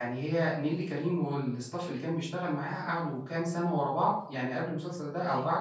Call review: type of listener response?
listening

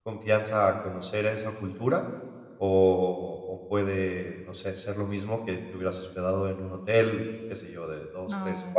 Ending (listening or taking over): listening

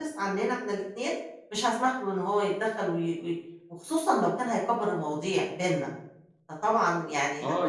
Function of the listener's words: taking over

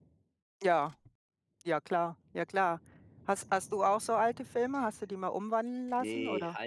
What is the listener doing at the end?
taking over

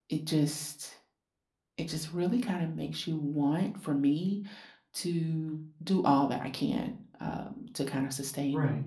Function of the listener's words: listening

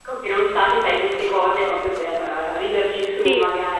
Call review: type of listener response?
taking over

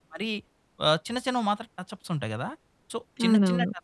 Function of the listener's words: listening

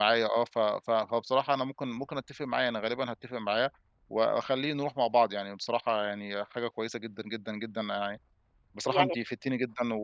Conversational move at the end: listening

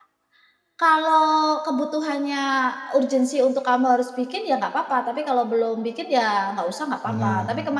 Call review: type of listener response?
listening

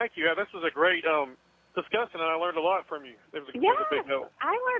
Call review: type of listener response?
taking over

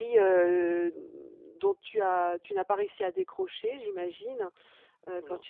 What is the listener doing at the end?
listening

